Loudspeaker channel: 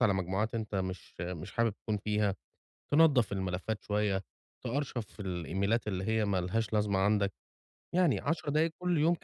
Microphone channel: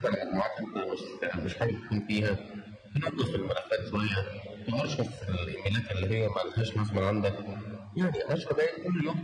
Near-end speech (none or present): none